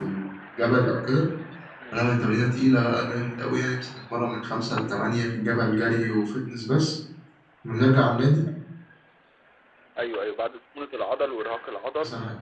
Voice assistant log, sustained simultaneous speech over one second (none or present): none